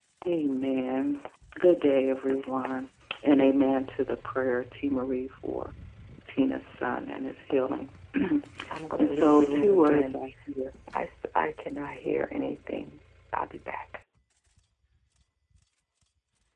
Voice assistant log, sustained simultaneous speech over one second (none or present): present